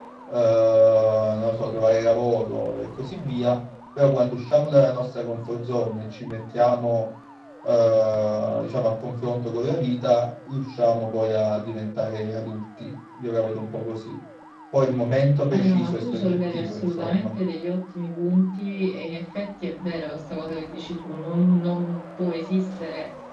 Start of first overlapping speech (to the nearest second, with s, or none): 15 s